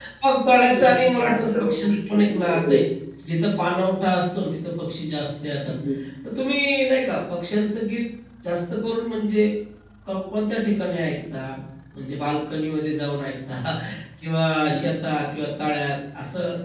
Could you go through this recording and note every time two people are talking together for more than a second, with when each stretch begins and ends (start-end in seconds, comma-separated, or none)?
0.8-2.8